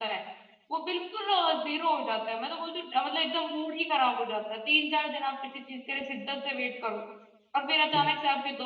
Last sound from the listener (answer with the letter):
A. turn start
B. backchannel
B